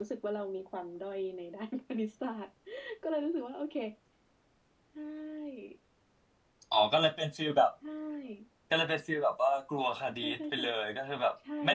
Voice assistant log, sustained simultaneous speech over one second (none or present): none